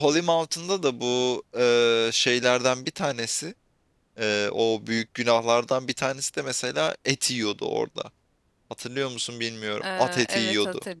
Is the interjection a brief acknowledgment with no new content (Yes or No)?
No